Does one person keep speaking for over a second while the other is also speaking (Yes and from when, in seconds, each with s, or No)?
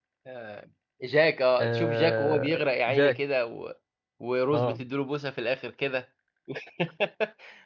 Yes, from 1.6 s